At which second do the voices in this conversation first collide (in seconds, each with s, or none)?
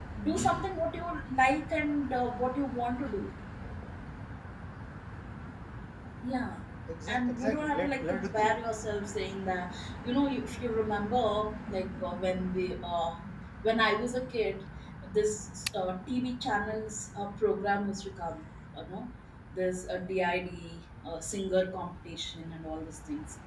7.1 s